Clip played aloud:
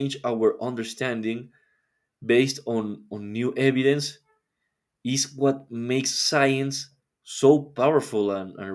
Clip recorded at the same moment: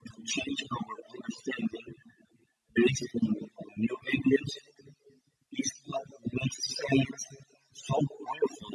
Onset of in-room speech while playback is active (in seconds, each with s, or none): none